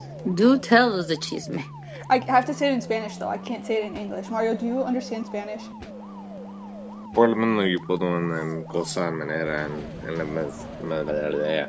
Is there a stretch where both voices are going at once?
No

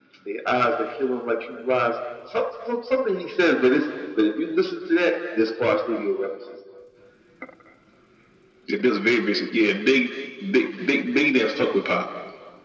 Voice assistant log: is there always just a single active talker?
Yes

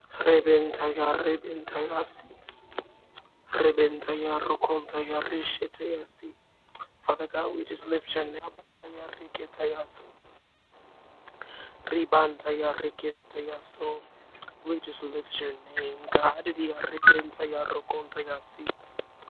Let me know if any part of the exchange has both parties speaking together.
No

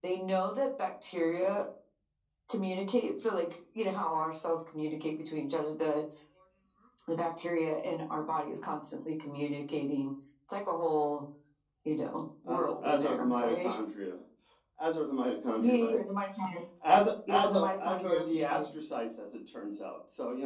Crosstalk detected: Yes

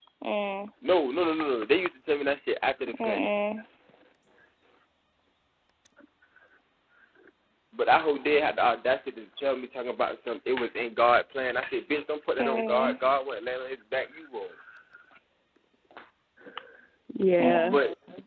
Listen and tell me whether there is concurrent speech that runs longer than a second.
No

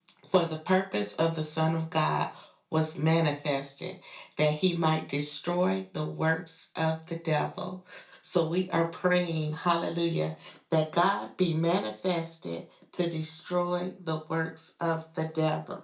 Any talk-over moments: No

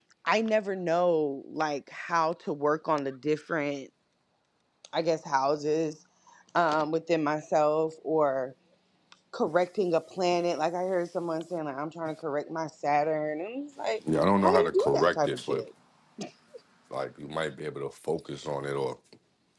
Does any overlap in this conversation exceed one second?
Yes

